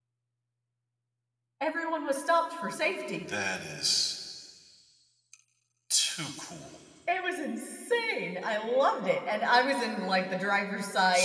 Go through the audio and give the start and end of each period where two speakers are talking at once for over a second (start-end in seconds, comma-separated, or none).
none